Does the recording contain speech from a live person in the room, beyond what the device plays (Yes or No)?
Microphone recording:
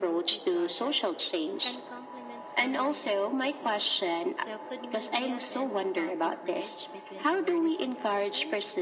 Yes